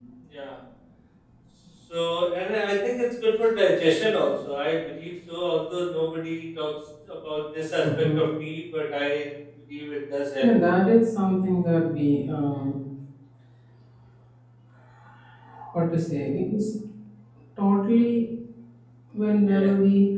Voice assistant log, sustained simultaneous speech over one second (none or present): none